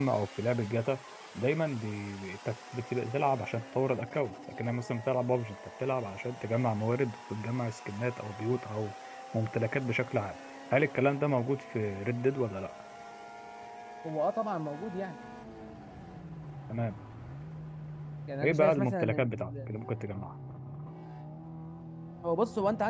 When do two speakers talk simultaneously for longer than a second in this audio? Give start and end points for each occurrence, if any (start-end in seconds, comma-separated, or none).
18.4-19.7